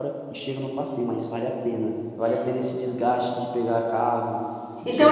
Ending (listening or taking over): taking over